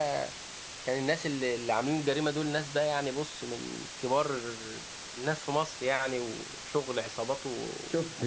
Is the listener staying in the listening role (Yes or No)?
No